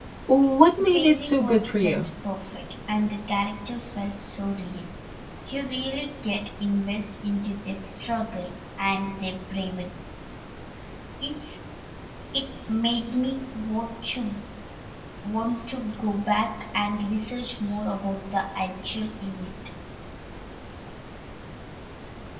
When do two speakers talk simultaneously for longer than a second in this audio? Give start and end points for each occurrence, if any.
0.8-2.1

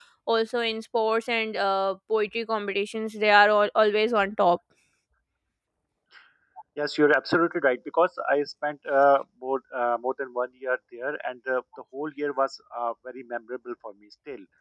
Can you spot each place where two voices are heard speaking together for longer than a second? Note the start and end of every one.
none

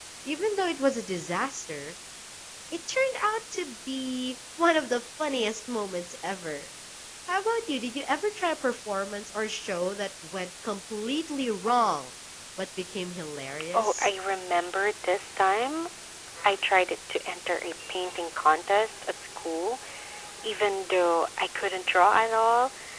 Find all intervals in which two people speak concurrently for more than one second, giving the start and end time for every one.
none

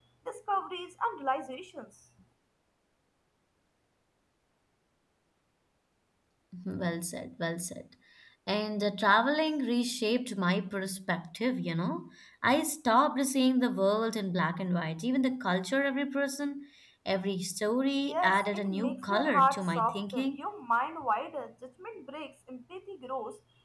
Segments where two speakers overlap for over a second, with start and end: 18.0-20.4

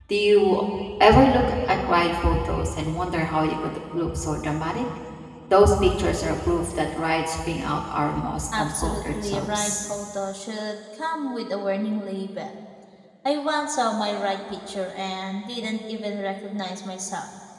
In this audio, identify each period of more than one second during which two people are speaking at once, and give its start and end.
8.6-9.8

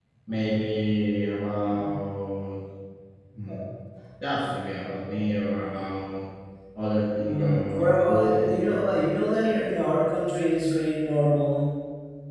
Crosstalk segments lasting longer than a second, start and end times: 7.1-8.5

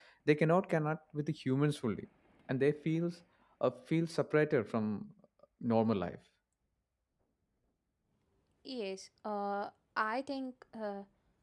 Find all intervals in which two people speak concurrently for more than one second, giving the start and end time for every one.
none

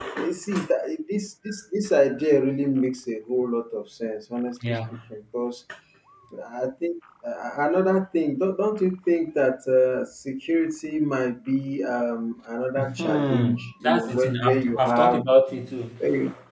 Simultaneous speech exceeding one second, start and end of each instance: 12.8-15.2

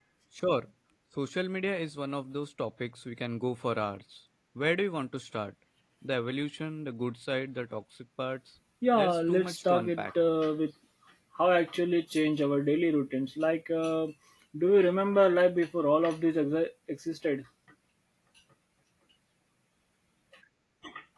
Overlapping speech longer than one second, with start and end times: 8.9-10.1

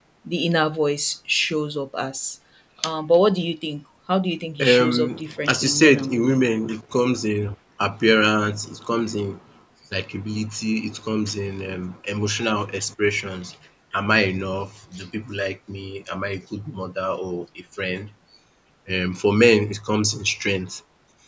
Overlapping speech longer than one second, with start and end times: 4.7-6.4

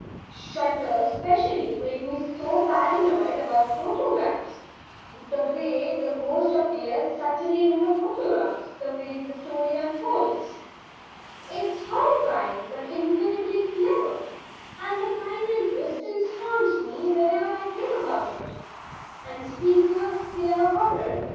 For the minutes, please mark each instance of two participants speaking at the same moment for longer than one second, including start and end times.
none

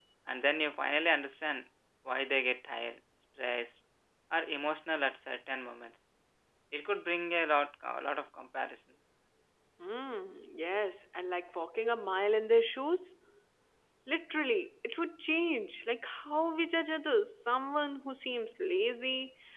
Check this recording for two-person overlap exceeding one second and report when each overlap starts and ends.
none

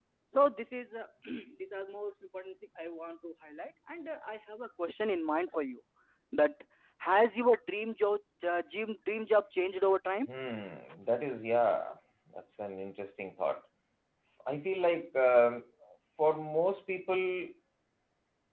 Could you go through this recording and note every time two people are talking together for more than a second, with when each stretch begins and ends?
none

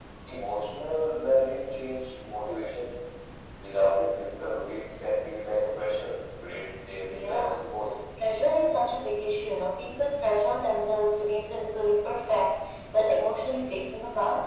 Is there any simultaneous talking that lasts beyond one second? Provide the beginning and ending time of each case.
none

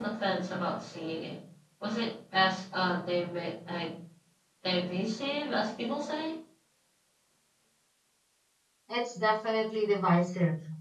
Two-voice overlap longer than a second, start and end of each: none

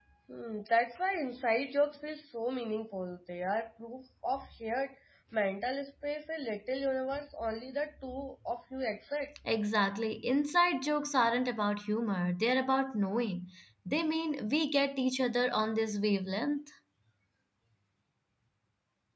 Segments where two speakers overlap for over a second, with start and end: none

